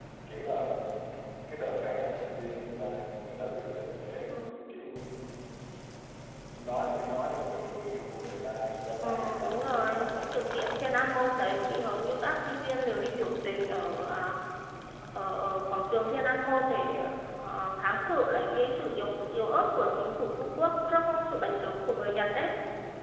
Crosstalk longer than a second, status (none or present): present